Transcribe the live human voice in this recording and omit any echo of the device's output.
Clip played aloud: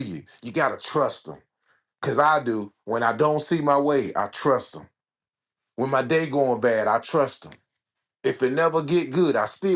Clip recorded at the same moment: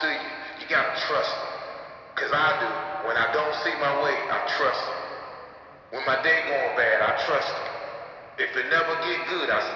none

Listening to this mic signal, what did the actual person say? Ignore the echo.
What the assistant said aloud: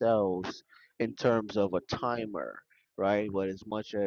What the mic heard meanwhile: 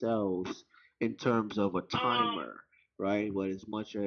um,

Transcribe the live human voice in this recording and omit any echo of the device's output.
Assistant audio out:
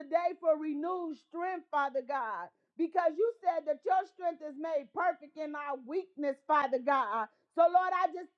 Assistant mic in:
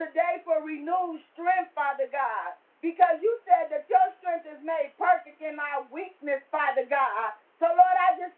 none

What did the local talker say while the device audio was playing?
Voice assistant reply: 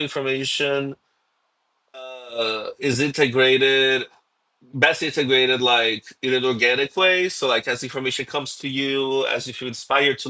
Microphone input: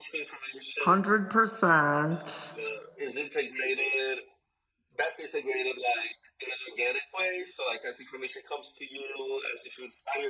hundred percent

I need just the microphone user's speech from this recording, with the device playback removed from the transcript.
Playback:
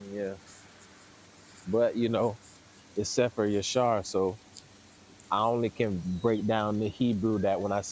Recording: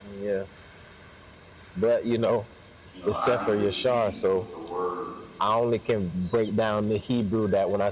You know, I need to see what the word

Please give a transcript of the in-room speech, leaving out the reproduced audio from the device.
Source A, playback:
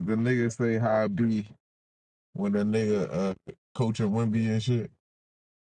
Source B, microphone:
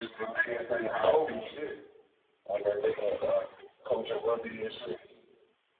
Oh, shit.

